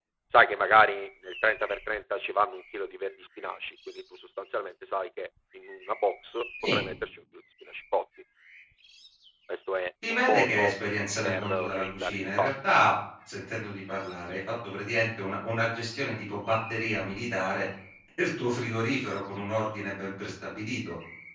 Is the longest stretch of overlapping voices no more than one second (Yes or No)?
No